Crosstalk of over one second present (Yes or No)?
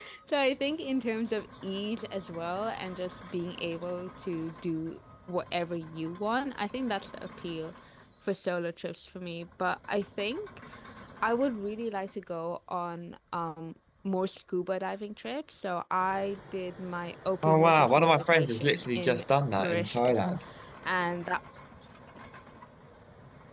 Yes